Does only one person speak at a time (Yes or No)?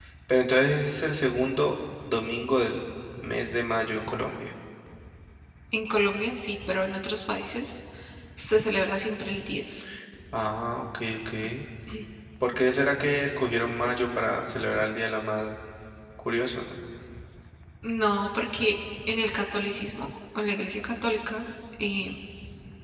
Yes